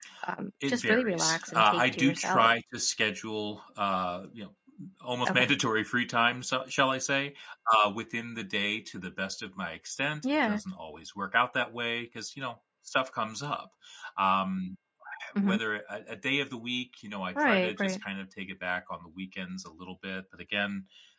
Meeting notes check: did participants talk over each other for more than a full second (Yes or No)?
Yes